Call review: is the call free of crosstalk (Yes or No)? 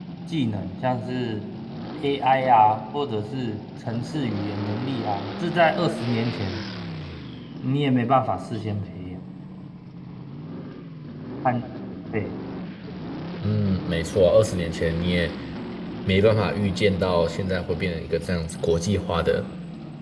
Yes